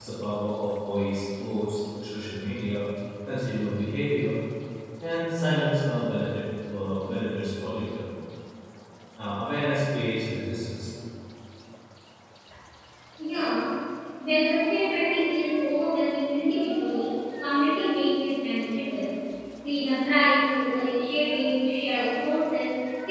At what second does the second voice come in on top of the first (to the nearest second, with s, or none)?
none